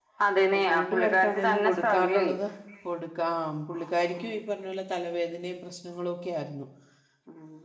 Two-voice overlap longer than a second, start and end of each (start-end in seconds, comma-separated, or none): 0.6-2.4